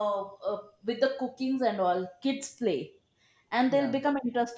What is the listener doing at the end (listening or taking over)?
listening